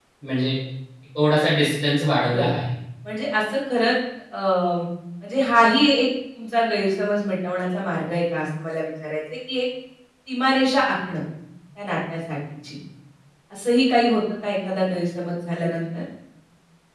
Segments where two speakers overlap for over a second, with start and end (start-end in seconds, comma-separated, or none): none